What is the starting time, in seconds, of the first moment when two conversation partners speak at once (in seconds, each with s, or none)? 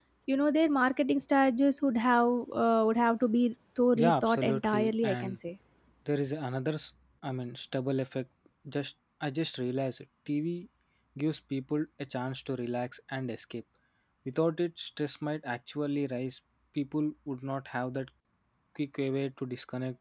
4.0 s